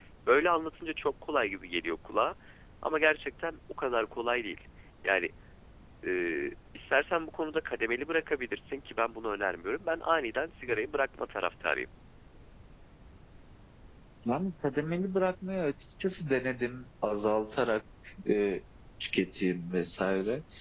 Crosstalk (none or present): none